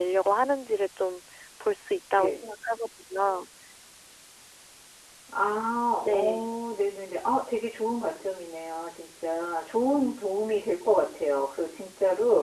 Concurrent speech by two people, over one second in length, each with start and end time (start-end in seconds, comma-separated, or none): none